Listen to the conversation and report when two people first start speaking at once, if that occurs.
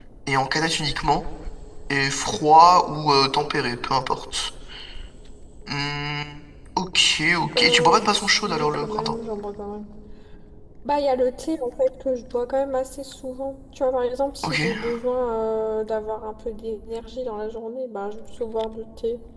8 s

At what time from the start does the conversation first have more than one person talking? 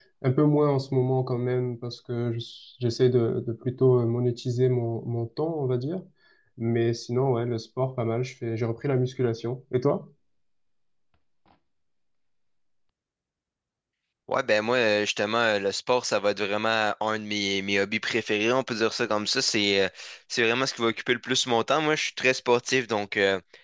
none

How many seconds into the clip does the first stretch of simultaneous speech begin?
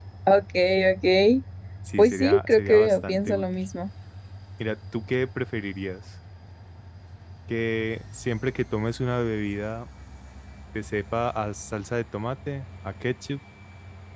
2 s

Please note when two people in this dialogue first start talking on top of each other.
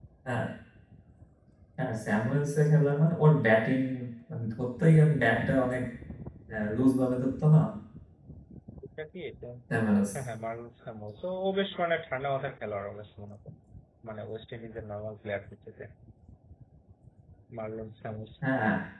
none

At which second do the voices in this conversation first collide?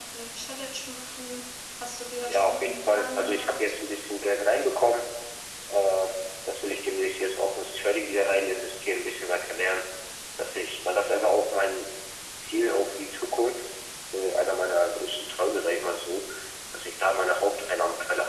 2 s

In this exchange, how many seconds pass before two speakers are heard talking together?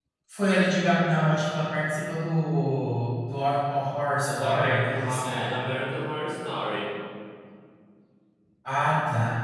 4 s

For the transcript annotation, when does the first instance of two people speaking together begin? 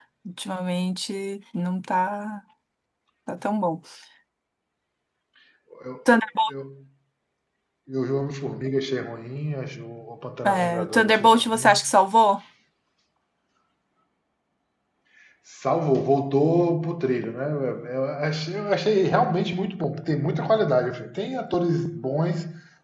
10 s

